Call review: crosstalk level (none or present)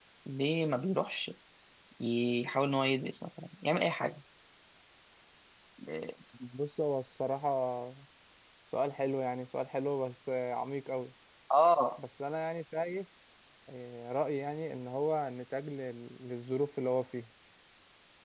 none